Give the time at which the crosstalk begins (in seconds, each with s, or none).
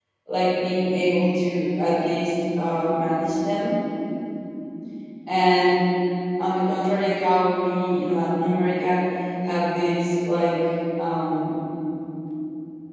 none